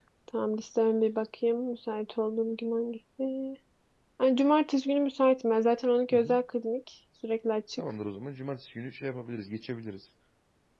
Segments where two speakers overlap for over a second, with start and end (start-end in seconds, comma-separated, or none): none